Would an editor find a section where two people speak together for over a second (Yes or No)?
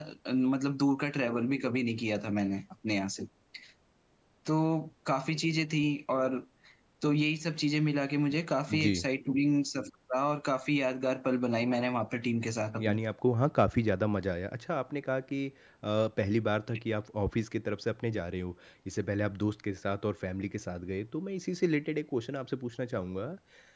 No